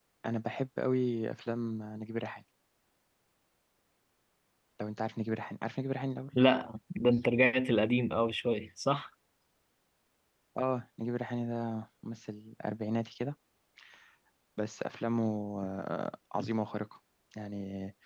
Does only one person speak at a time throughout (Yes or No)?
Yes